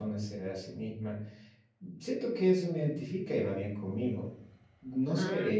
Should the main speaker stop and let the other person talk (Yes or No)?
No